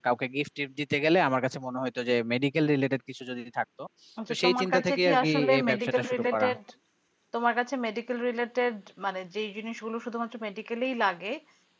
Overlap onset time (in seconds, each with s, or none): 4.3 s